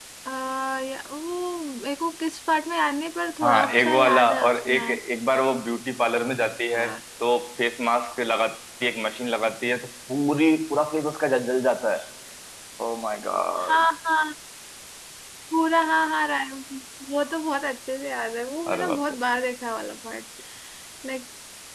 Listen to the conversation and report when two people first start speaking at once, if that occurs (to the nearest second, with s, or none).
3 s